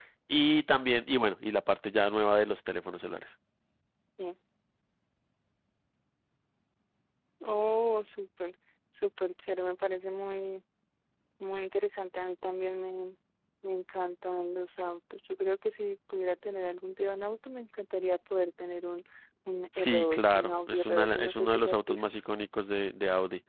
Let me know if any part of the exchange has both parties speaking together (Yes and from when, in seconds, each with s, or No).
Yes, from 19.8 s